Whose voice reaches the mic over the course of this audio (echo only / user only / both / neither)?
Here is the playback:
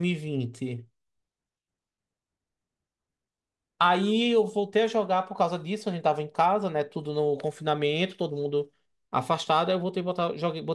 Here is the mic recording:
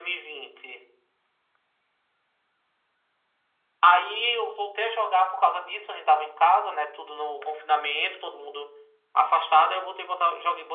echo only